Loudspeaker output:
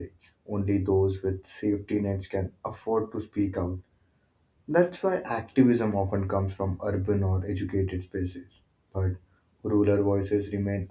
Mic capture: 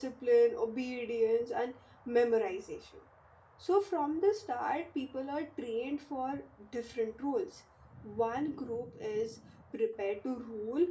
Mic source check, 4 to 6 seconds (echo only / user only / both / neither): user only